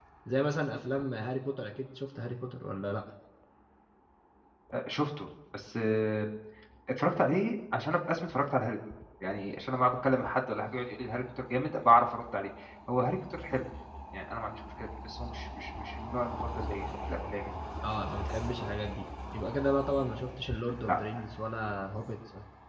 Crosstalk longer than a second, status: none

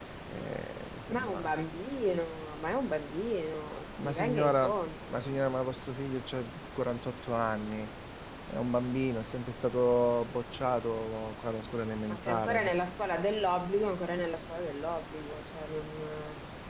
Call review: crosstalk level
present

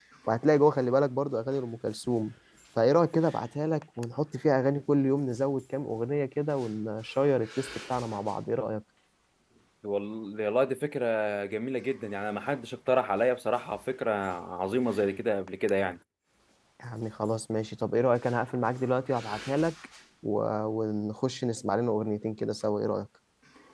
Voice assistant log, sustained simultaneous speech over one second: none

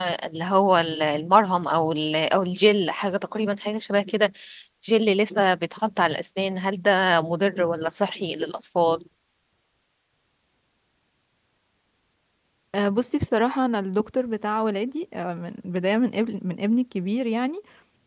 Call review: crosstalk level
none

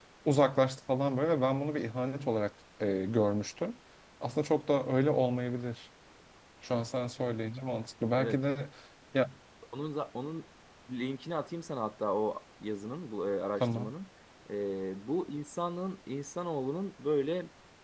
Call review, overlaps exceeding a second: none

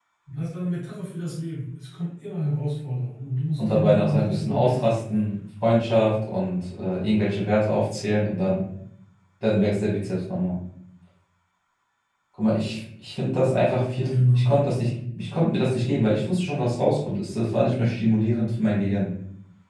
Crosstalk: present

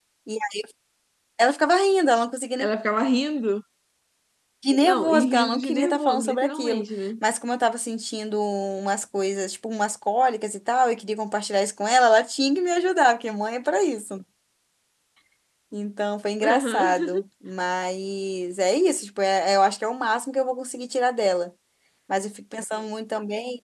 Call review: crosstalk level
present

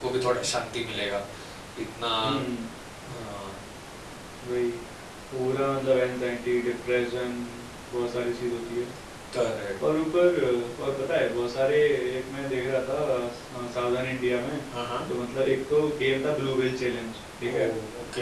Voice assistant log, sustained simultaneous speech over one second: none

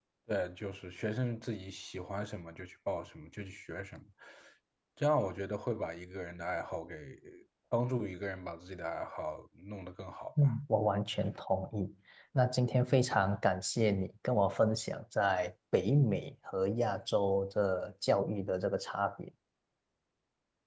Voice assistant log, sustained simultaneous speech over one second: none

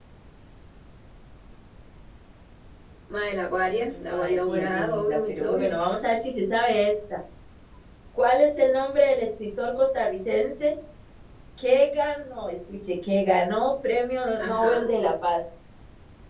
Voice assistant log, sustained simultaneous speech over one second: present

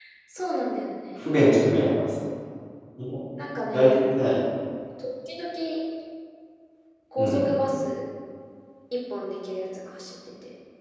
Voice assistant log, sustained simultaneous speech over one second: none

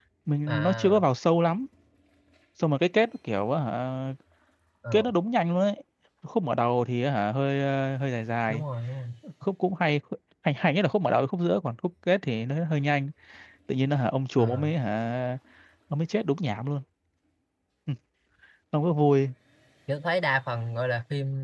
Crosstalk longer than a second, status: none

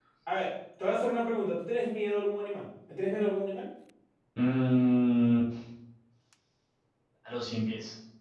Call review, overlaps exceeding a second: none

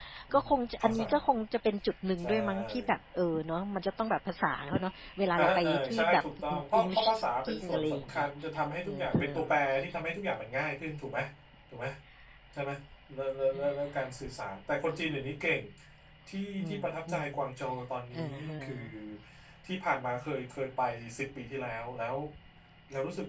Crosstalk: present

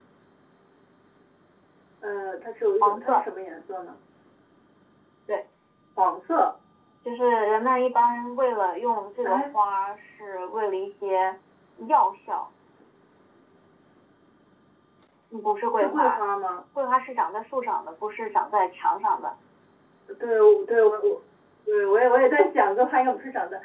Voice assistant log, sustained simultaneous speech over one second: none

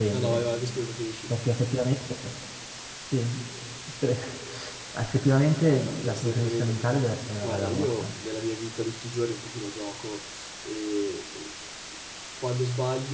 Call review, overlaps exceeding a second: present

